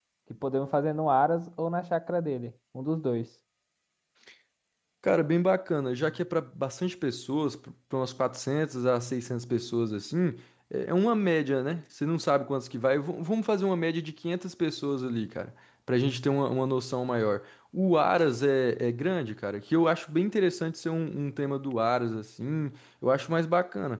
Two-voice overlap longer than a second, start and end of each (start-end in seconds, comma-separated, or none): none